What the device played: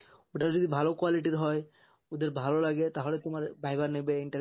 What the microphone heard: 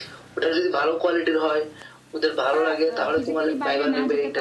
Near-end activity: present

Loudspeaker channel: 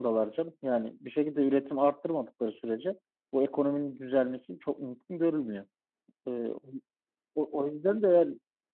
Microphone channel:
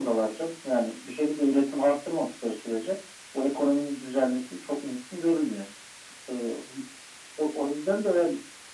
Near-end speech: none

